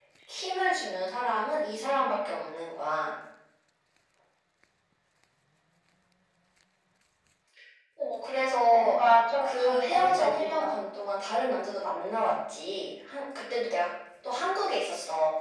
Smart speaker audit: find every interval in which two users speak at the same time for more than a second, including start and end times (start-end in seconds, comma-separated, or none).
9.4-10.7